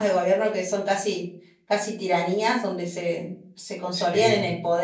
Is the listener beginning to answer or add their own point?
No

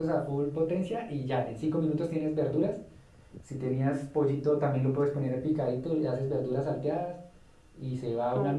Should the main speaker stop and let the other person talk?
No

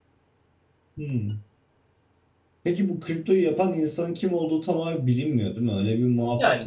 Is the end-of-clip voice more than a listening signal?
Yes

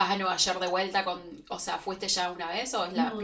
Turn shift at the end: Yes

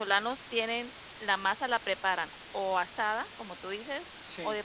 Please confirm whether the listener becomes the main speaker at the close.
No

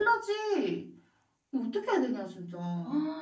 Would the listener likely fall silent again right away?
Yes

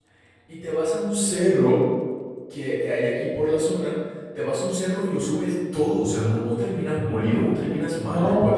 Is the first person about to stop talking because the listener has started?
Yes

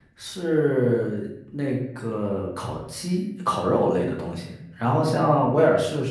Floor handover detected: No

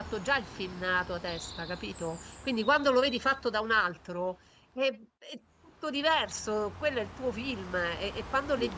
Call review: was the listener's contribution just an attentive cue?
Yes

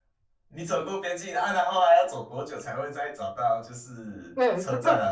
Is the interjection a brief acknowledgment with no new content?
No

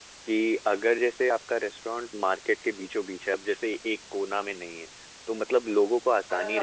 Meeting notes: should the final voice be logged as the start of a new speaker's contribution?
Yes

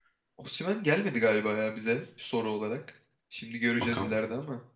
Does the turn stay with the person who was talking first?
Yes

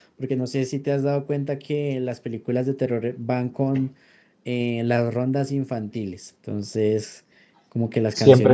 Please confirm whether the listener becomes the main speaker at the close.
Yes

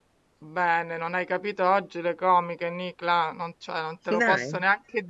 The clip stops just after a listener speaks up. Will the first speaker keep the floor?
Yes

